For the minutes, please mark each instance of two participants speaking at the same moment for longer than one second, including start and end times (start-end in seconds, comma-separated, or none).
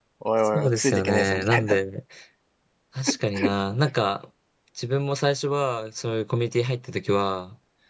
0.5-1.8